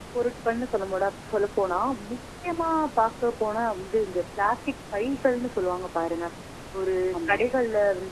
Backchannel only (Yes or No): Yes